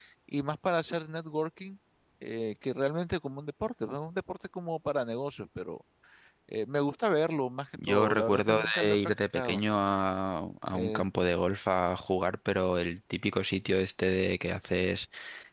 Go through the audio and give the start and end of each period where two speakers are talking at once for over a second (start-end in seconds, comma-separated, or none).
7.9-9.6